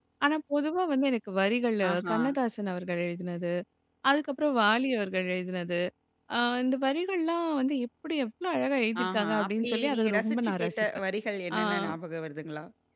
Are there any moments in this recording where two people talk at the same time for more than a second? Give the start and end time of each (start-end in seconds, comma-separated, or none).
9.0-10.9